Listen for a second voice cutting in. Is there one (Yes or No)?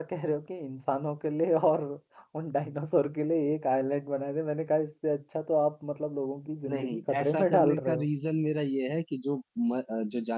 Yes